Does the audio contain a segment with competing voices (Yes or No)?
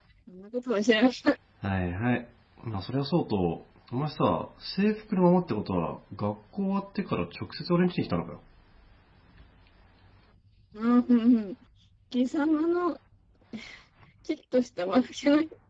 No